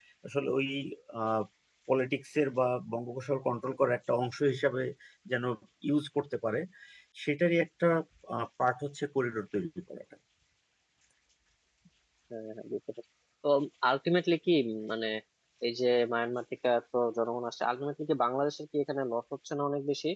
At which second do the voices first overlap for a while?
none

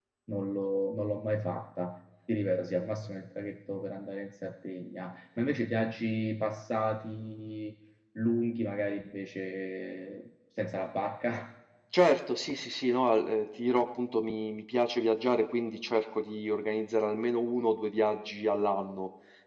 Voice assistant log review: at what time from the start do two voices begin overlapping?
none

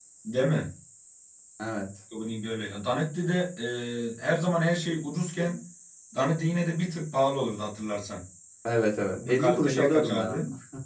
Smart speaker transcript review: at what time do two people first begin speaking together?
9.1 s

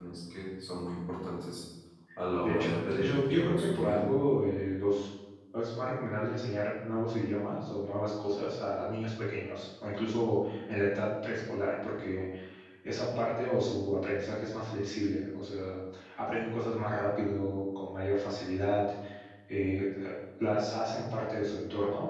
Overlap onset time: 2.4 s

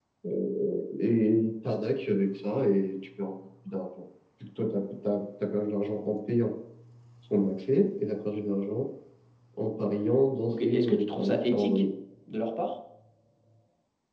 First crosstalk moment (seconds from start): 10.5 s

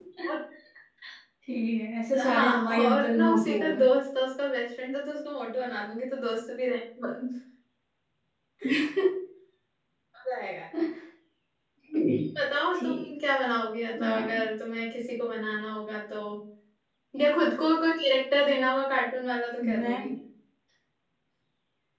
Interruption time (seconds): 2.2 s

